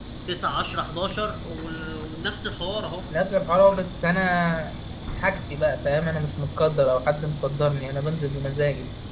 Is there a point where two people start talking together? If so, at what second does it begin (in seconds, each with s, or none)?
none